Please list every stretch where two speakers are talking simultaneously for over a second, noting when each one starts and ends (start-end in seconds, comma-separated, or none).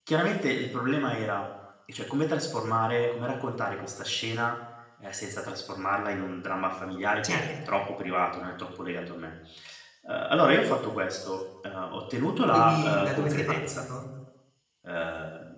12.4-13.8